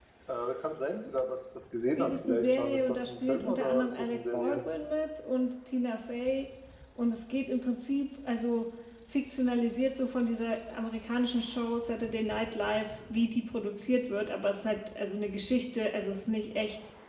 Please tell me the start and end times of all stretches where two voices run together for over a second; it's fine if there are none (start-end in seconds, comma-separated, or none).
2.0-4.6